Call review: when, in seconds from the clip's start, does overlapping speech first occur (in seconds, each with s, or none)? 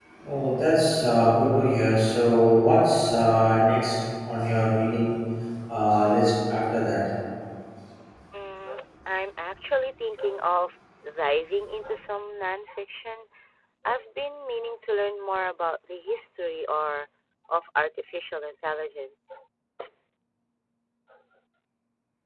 none